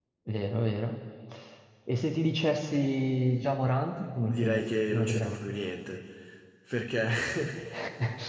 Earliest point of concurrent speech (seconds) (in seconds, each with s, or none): 4.3 s